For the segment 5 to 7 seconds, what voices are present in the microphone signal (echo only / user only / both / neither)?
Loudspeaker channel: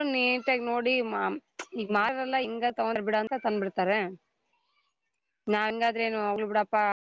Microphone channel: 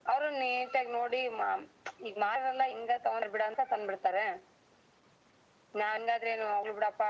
echo only